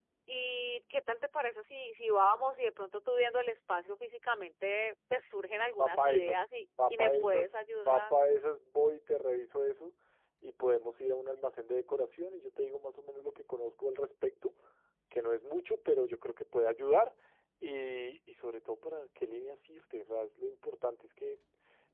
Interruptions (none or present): present